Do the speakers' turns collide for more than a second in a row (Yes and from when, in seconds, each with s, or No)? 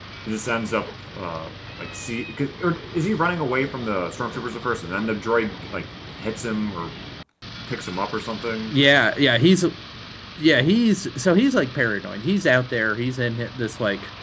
No